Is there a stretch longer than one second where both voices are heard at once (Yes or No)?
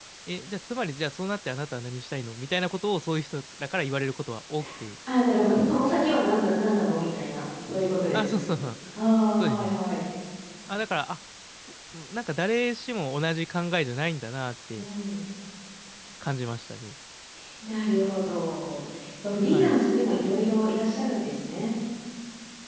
No